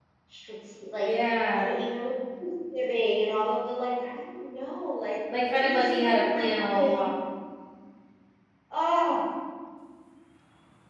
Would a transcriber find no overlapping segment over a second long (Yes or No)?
No